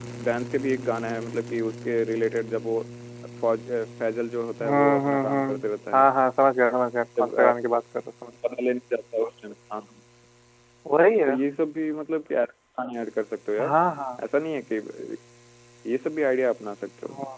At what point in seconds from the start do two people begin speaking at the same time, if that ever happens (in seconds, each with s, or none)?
4.6 s